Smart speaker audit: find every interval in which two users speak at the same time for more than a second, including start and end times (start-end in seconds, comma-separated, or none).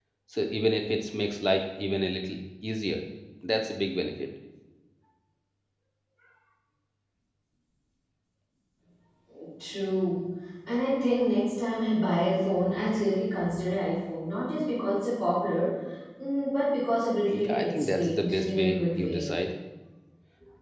17.3-19.3